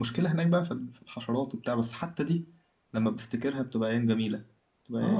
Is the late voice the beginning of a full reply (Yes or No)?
Yes